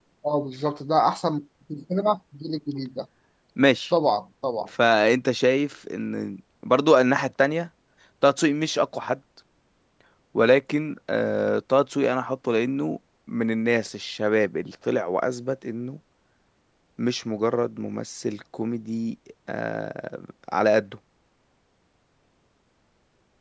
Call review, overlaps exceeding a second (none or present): none